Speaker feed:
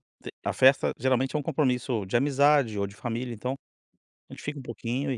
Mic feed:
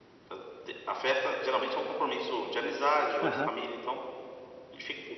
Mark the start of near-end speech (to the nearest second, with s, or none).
3 s